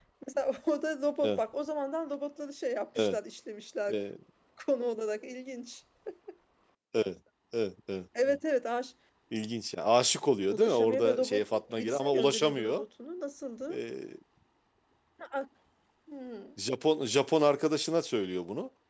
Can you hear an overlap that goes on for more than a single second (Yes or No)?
Yes